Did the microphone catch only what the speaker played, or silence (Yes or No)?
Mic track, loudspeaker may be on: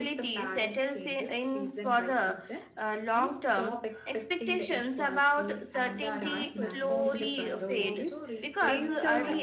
No